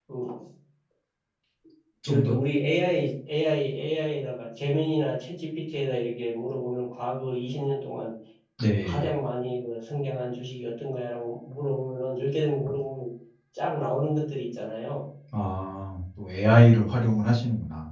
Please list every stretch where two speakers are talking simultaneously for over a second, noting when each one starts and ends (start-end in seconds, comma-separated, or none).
none